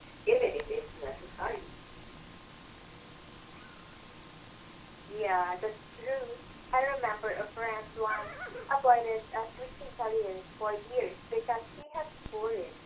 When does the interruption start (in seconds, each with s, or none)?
none